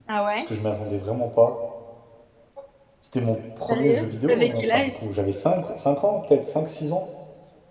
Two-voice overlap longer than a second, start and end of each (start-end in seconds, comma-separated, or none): 3.7-5.0